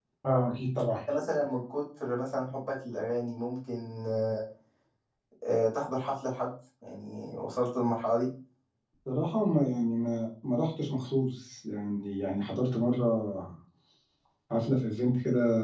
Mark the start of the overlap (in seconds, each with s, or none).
none